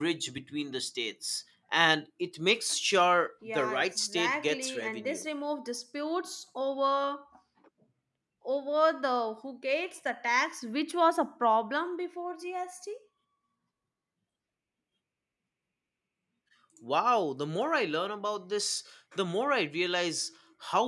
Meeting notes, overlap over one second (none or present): present